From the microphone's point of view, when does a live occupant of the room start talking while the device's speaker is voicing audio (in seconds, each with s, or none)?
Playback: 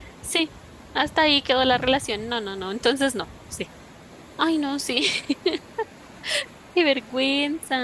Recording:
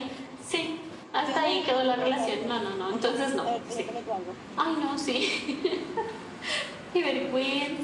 1.2 s